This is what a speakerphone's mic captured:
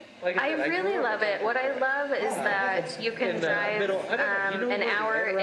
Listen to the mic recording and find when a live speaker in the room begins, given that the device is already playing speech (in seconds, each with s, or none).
2.1 s